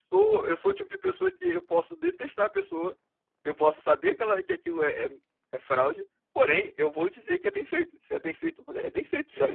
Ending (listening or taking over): taking over